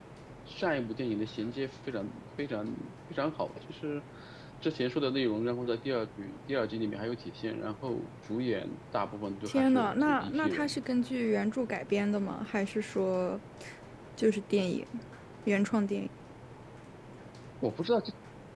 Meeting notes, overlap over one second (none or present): present